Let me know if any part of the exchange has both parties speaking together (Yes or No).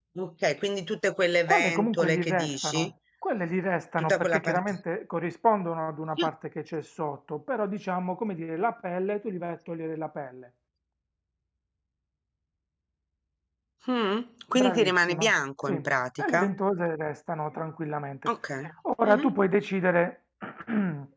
Yes